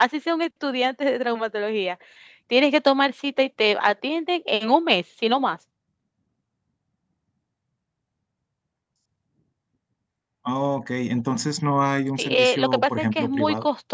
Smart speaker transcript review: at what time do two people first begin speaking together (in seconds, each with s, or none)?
12.2 s